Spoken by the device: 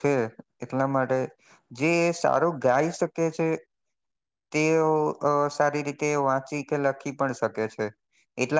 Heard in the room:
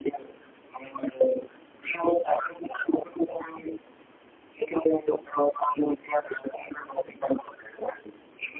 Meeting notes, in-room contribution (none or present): none